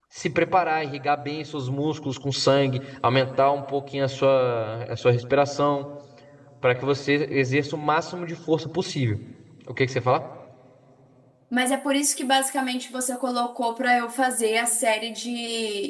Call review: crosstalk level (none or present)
none